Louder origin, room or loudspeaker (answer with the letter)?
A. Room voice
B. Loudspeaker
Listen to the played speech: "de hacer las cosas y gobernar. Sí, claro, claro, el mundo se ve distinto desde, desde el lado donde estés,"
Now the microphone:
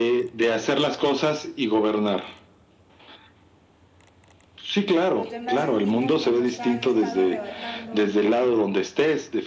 B